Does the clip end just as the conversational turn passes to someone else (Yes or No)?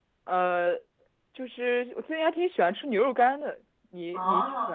Yes